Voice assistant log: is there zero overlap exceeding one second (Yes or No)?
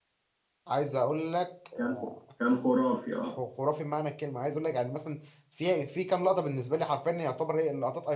Yes